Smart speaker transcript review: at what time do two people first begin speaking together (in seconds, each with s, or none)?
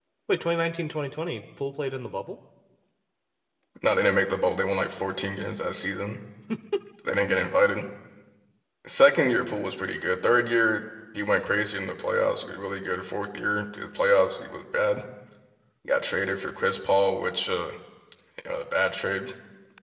none